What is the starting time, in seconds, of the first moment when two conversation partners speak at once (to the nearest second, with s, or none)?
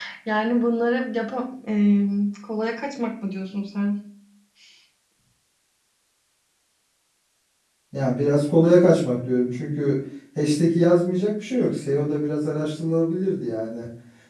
none